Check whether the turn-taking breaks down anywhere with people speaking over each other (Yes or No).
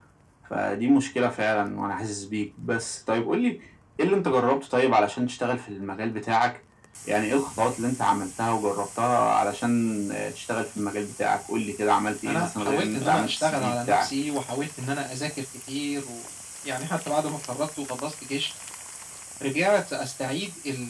Yes